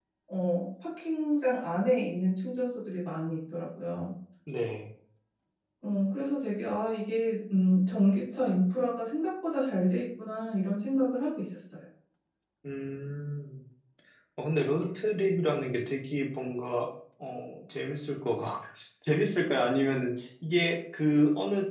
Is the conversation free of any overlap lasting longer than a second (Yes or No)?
Yes